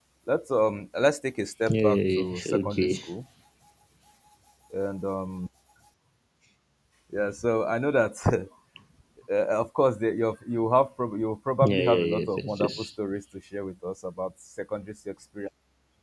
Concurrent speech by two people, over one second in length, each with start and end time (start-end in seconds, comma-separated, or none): 1.7-2.9, 11.6-12.9